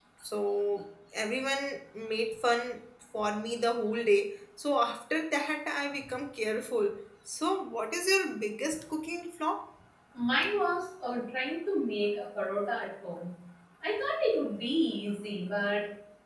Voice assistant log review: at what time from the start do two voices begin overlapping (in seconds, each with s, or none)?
none